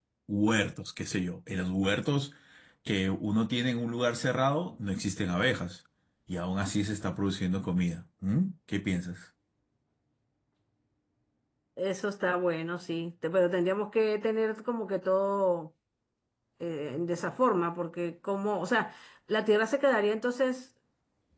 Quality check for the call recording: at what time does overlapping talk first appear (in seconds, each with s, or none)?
none